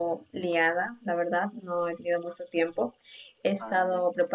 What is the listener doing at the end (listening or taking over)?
listening